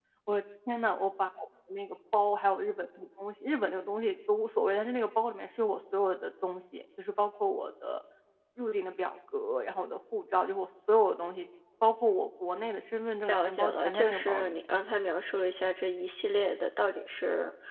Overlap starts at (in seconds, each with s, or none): 13.3 s